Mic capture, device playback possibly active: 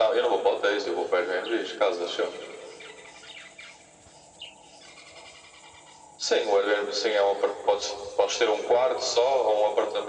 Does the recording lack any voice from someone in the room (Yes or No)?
Yes